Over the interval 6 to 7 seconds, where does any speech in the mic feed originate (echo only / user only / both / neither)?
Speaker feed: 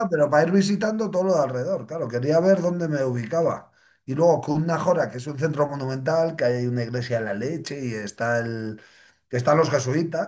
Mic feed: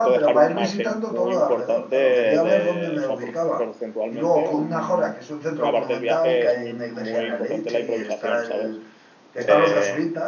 both